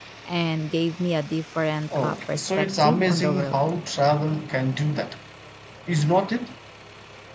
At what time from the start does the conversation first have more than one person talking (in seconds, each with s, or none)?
1.9 s